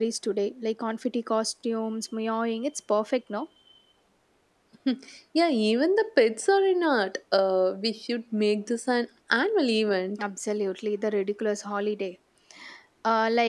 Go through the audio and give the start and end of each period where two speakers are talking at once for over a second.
none

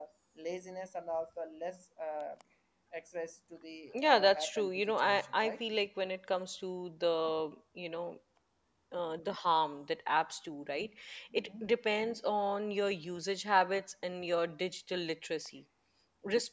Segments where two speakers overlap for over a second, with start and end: 3.9-5.5

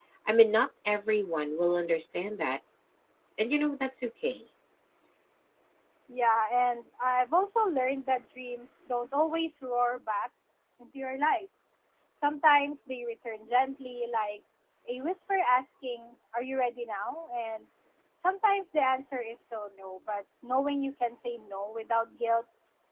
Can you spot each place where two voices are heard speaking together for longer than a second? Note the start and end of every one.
none

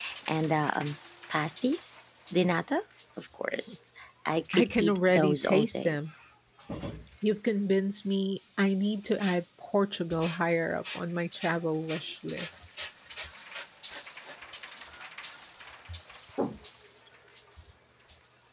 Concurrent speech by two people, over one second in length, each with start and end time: 4.5-6.1

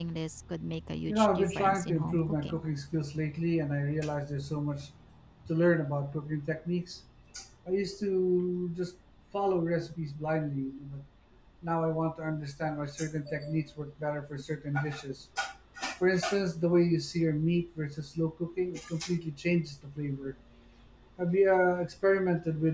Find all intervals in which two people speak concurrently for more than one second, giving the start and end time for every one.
1.1-2.6

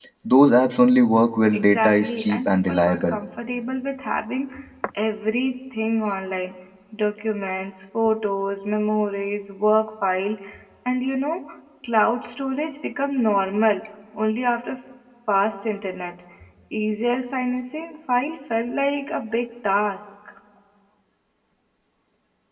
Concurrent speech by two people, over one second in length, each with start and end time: 1.5-3.2

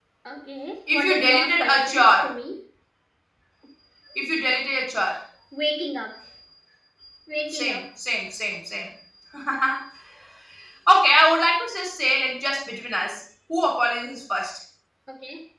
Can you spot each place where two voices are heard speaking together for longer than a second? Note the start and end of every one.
0.9-2.3

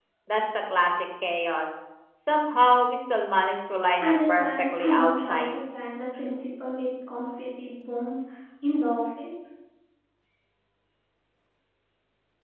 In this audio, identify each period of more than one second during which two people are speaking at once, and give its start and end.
4.0-5.5

